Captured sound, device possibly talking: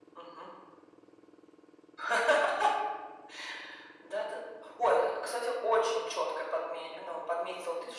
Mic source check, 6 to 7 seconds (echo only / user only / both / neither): echo only